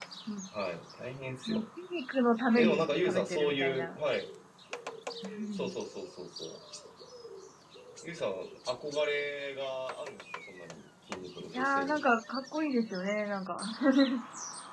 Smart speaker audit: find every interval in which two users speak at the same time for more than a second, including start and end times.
2.5-4.0

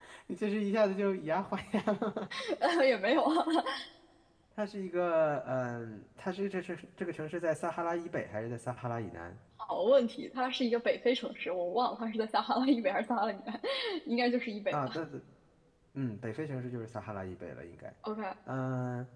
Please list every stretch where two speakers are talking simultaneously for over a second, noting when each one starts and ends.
none

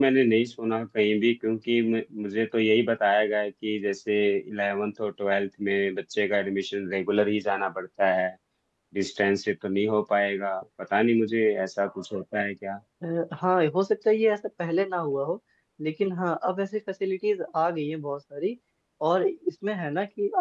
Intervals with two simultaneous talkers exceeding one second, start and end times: none

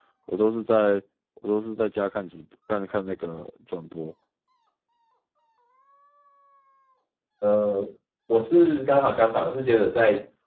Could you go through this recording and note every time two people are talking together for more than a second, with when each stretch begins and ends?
none

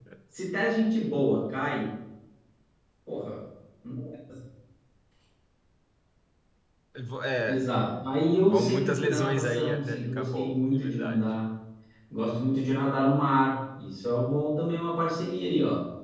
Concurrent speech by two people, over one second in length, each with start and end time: 8.4-11.2

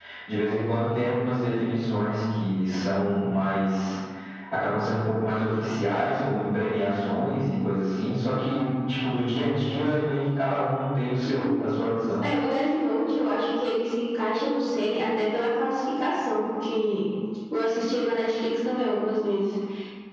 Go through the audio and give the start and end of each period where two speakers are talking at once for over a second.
none

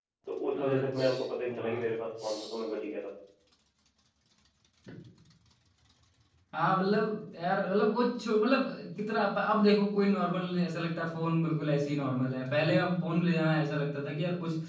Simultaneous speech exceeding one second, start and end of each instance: 0.6-1.8

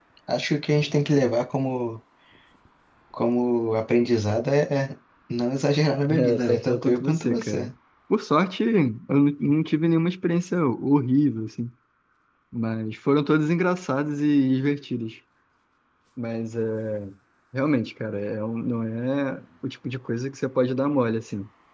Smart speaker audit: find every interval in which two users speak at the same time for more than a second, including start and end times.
6.1-7.7

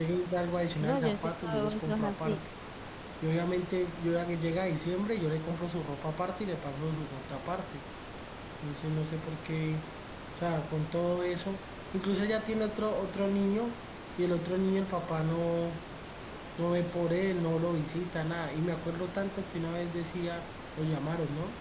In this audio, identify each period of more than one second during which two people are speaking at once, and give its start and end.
0.8-2.4

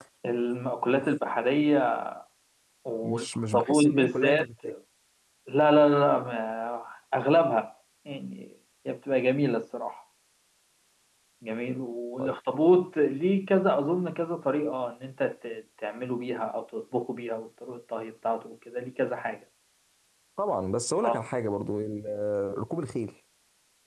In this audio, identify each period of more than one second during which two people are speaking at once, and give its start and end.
3.0-4.6

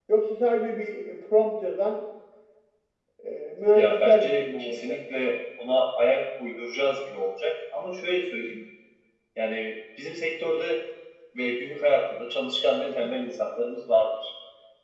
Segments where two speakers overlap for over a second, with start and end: 3.7-5.0

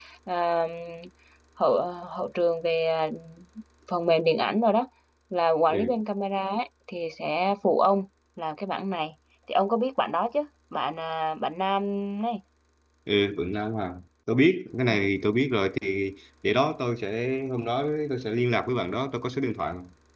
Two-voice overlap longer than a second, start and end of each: none

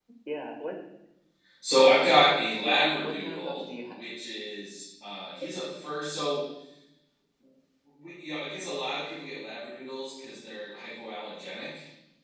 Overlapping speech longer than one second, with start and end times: 2.6-4.0

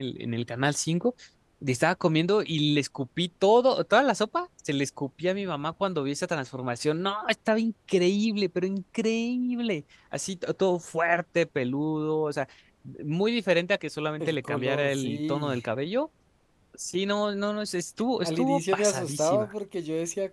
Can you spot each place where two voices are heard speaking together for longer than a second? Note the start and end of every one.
14.2-15.6, 18.2-19.5

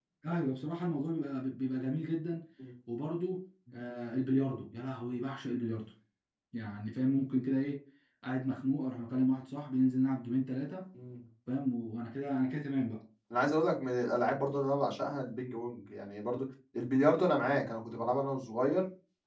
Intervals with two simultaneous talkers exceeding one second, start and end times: none

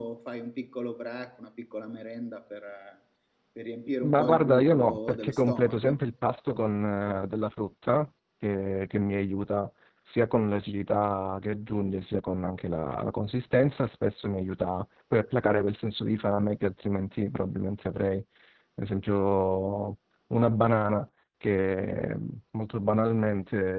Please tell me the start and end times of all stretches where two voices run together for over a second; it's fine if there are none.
4.0-6.0

